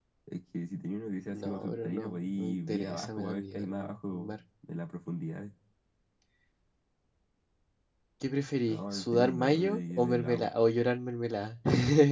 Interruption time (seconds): 1.3 s

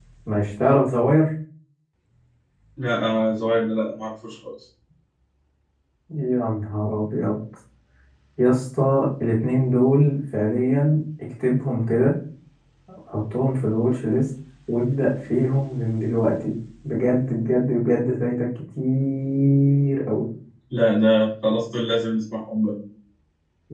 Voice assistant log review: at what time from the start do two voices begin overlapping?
none

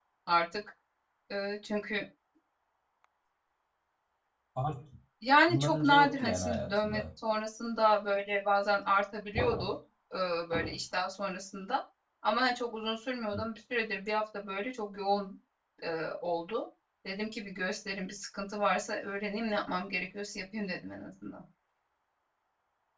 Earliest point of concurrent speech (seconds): 5.5 s

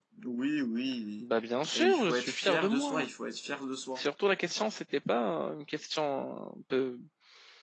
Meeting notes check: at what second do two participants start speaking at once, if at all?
1.8 s

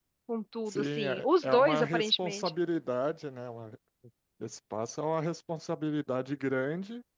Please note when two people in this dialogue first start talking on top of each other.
0.7 s

